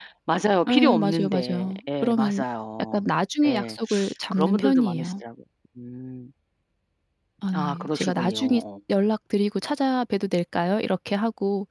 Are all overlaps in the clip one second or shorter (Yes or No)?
No